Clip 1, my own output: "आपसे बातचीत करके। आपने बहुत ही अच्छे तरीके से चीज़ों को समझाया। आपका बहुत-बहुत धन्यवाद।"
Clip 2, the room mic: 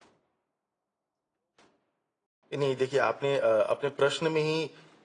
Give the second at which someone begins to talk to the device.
2.6 s

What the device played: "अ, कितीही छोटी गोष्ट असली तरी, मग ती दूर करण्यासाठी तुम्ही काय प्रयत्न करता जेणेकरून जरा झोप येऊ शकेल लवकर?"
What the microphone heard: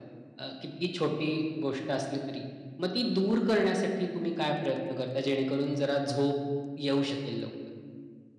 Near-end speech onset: none

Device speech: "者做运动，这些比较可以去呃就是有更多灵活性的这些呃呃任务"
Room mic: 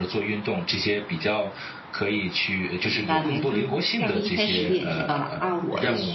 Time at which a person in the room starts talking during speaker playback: 2.8 s

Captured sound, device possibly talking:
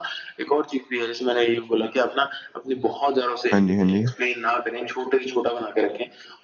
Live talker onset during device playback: 3.5 s

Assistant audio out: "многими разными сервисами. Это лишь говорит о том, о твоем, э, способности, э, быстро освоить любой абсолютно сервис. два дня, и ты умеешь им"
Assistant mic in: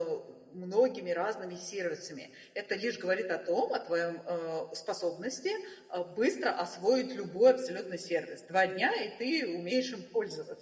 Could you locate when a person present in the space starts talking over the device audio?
none

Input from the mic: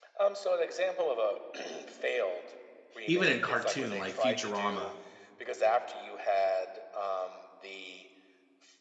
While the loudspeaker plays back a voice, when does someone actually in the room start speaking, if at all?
3.0 s

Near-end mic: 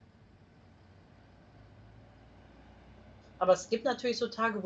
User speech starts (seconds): 3.4 s

